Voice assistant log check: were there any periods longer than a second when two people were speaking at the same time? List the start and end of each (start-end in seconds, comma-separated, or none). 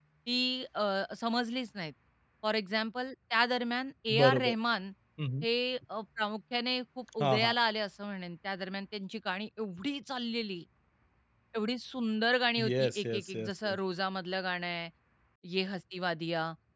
12.6-13.8